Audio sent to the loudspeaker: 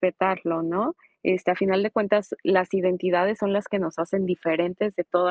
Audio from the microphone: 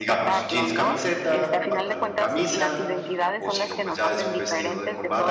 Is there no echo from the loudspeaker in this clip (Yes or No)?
No